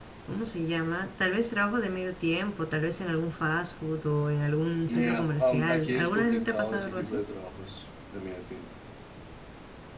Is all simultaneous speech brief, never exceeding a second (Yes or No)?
No